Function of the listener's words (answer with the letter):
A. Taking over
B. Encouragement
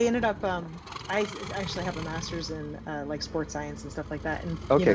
B